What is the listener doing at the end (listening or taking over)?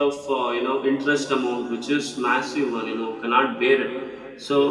listening